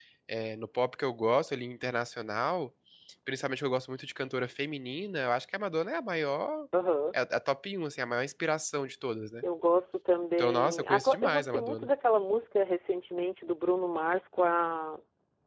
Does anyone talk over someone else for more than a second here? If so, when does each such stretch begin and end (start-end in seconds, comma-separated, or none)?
10.4-11.9